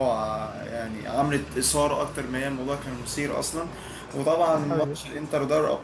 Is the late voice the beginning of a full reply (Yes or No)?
No